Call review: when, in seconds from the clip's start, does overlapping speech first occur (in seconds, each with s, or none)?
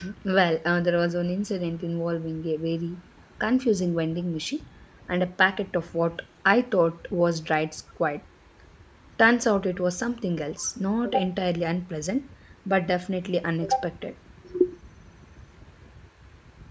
none